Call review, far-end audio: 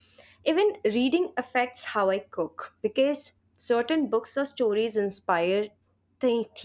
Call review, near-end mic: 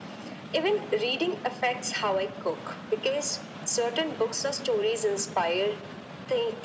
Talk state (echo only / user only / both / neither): echo only